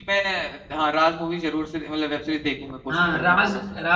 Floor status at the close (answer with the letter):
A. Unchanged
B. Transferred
B